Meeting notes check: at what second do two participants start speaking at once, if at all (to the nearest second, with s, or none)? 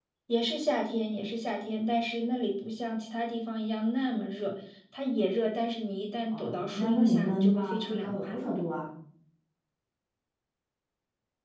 6 s